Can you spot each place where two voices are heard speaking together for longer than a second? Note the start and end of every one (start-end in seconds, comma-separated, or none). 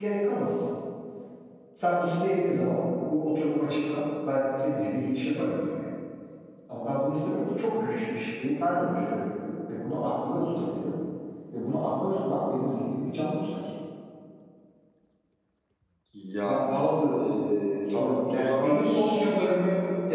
17.9-19.5